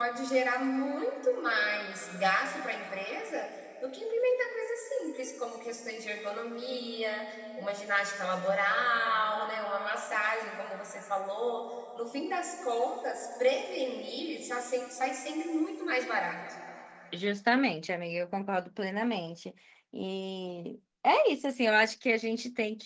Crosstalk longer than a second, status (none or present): none